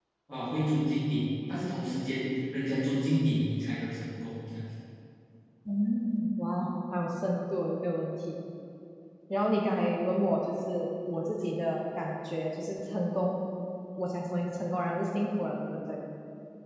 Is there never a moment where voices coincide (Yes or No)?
Yes